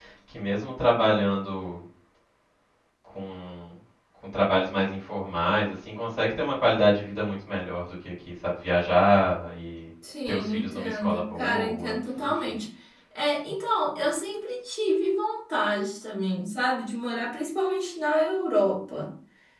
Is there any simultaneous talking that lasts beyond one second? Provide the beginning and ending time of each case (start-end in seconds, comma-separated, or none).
10.3-12.6